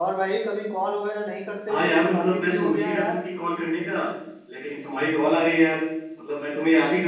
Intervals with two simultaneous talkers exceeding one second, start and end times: 1.7-3.2

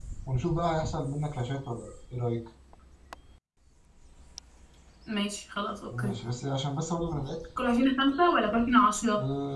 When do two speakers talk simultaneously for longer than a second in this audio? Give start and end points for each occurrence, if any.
none

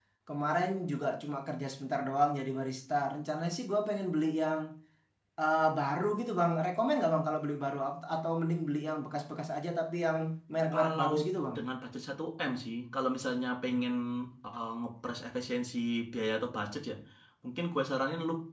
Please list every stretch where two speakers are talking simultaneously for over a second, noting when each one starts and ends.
none

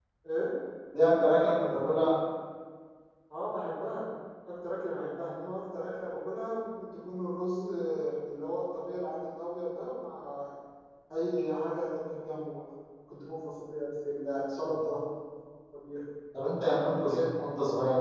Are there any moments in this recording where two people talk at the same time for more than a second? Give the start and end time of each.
none

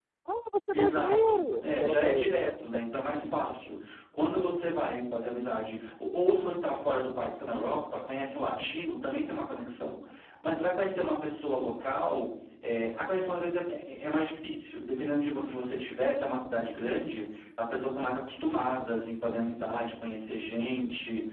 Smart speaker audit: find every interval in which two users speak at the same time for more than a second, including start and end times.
0.7-2.5

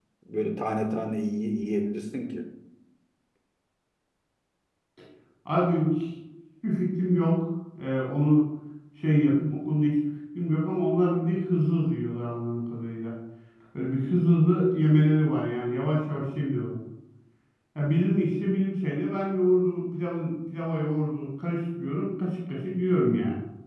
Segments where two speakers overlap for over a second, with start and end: none

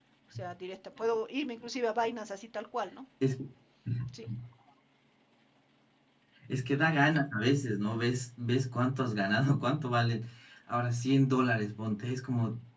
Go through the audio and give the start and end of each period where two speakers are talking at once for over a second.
none

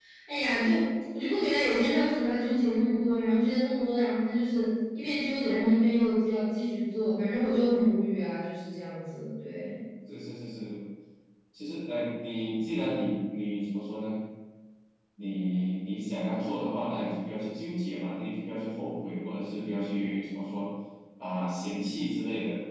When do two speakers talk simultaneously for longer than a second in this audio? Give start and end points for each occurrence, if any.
none

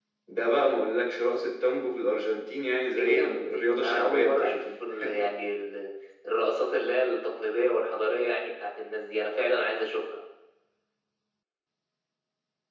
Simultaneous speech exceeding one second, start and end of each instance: 2.9-4.6

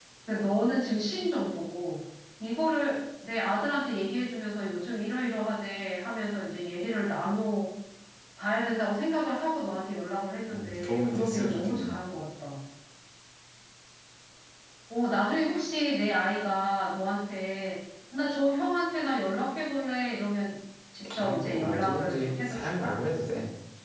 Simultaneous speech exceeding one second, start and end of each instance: 10.5-12.0, 21.2-23.0

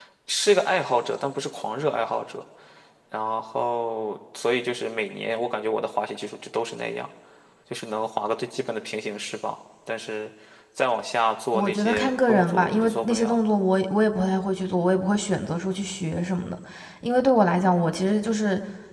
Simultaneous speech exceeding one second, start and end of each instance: 11.5-13.4

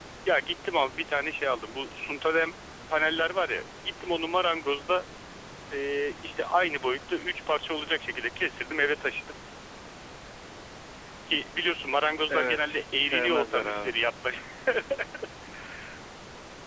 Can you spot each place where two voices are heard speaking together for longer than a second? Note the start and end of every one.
12.3-13.9

